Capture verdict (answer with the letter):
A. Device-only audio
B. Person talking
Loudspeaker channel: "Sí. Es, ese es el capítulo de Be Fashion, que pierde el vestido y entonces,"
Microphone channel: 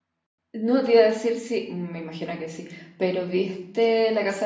B